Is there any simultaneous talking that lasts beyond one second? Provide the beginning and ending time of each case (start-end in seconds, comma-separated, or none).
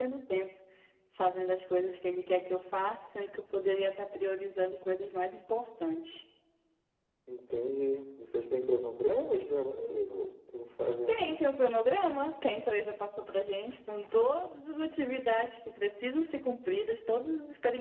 none